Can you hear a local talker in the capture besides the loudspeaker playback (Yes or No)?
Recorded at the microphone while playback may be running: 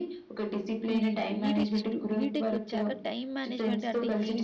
Yes